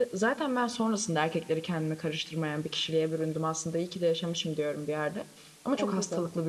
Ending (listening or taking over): listening